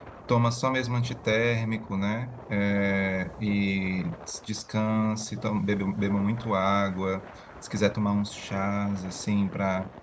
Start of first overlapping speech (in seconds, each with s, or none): none